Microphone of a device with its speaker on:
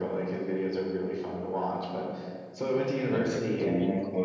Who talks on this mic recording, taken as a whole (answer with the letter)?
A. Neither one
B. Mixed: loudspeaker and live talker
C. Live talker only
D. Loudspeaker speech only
B